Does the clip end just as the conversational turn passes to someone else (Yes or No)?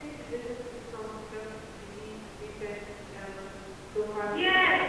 Yes